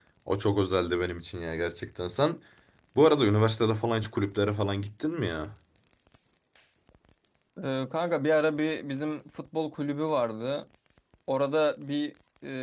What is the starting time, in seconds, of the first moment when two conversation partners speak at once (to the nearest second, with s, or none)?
none